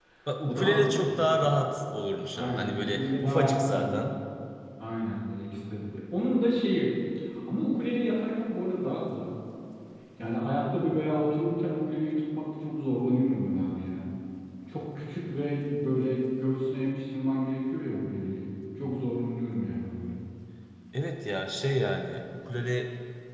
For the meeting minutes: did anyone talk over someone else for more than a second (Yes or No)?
Yes